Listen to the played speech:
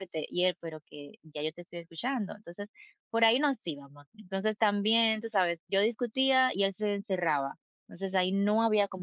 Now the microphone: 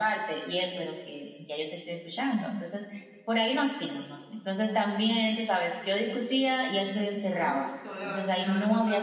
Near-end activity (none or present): present